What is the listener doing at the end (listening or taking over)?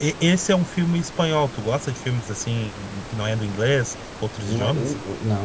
taking over